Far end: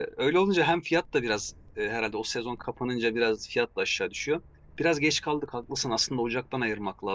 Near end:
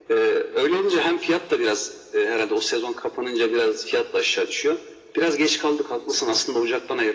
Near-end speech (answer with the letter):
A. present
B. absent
B